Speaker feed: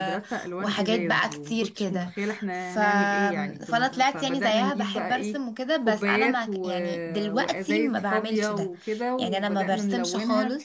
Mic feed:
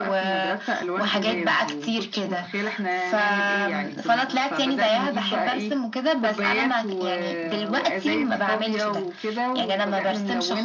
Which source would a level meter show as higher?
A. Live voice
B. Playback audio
B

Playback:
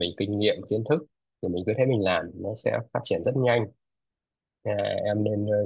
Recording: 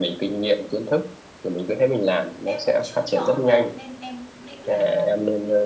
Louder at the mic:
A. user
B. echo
B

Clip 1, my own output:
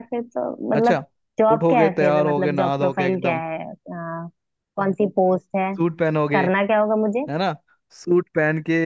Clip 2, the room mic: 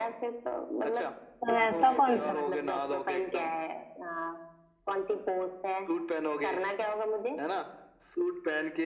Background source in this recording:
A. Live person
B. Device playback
B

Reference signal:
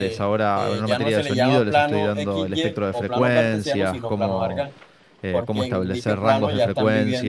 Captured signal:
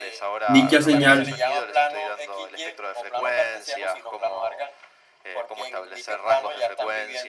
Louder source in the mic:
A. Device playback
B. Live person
B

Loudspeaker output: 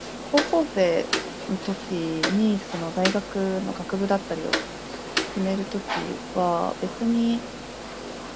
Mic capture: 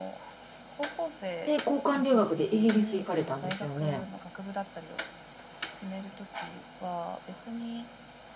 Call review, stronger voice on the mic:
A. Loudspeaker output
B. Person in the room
B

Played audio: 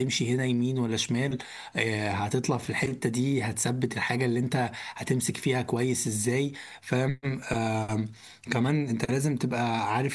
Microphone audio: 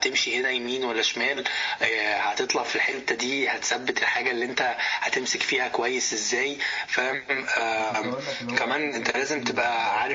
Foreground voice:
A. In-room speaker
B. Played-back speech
B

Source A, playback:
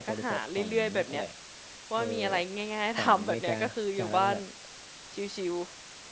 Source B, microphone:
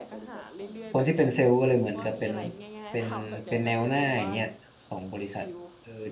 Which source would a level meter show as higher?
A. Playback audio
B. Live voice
B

